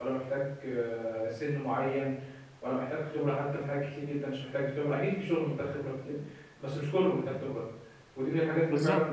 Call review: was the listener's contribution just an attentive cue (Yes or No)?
Yes